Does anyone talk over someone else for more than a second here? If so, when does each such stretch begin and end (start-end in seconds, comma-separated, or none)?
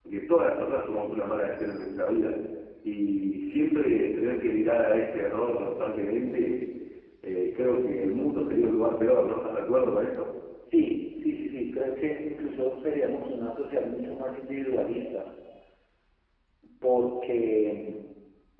none